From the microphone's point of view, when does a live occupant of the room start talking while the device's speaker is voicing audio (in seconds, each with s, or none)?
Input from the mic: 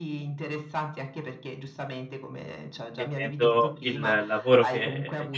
2.9 s